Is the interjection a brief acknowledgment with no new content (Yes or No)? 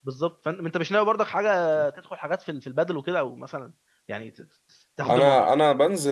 No